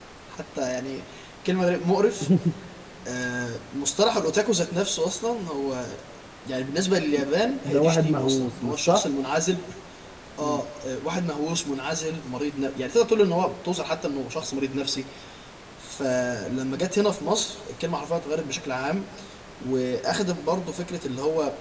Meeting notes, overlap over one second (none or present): present